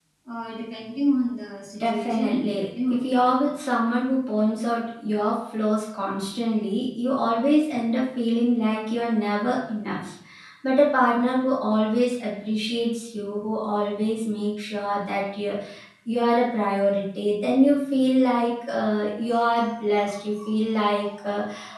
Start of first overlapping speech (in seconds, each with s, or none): 1.7 s